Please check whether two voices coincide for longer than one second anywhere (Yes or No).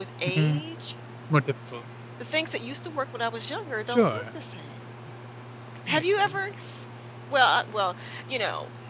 No